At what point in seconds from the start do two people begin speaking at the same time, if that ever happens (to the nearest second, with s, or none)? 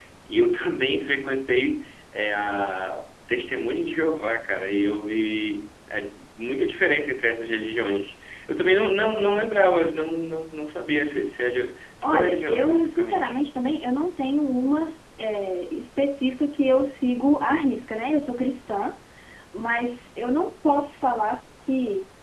12 s